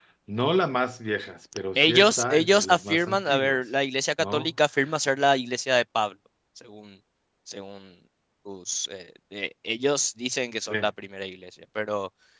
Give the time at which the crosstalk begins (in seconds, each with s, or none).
1.8 s